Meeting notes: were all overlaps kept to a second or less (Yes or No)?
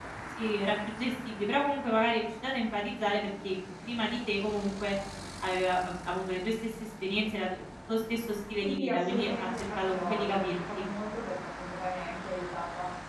No